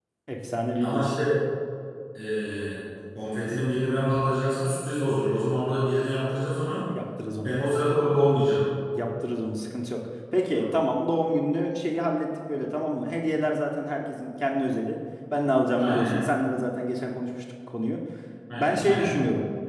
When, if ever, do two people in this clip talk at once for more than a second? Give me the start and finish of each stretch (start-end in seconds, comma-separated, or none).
none